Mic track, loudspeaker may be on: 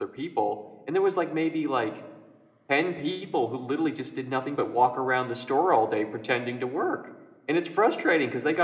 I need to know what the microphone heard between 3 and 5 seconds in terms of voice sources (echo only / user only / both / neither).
user only